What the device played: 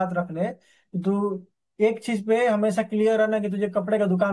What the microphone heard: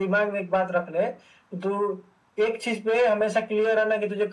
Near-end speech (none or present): none